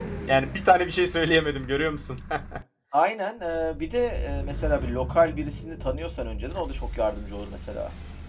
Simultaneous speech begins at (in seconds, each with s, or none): none